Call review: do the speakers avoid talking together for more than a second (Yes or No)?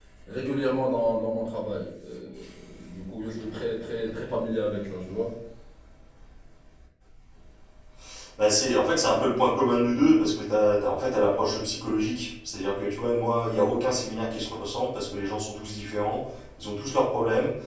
Yes